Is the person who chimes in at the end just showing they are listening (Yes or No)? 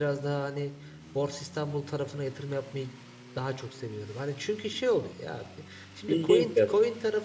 Yes